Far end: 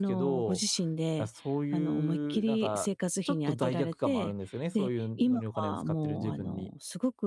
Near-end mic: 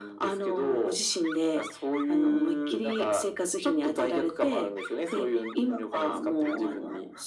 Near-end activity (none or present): none